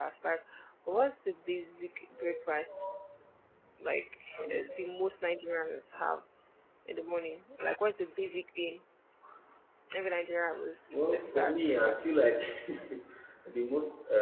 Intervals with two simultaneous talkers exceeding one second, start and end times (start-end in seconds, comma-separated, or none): 10.9-12.2